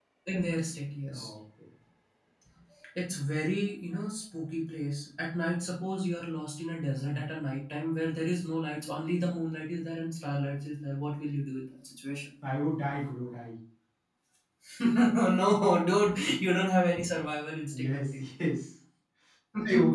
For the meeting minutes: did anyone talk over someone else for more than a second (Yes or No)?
No